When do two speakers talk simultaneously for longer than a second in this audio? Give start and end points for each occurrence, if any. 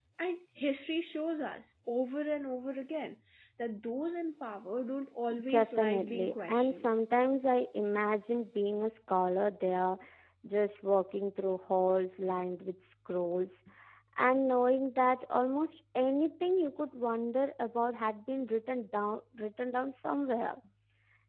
5.5-6.9

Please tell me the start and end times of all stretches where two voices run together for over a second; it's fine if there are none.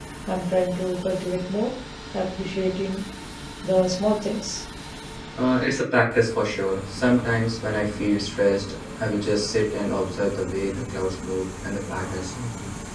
none

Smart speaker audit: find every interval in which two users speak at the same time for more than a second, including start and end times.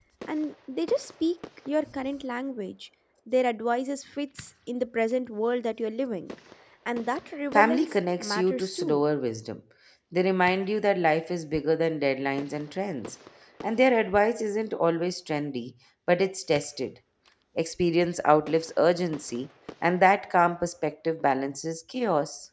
7.5-9.0

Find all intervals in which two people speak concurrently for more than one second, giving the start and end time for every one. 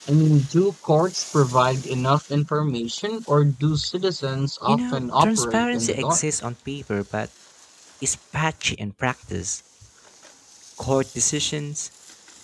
4.7-6.2

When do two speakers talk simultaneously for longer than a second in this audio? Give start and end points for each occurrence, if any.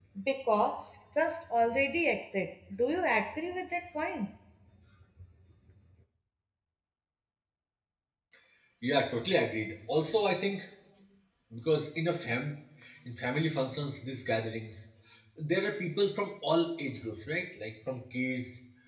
none

